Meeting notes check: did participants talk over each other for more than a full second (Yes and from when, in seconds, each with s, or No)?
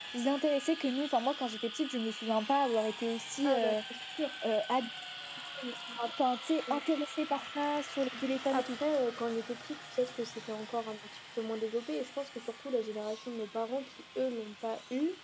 No